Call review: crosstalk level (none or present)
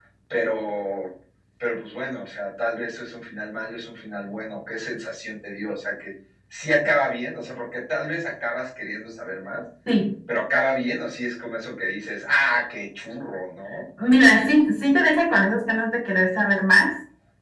none